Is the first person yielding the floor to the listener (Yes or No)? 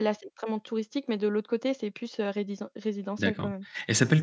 Yes